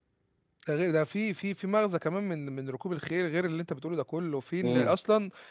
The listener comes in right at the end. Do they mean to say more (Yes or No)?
No